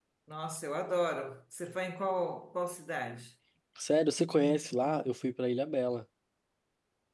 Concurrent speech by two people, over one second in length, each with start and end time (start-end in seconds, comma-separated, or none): none